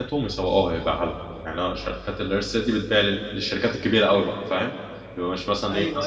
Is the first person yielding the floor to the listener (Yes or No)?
Yes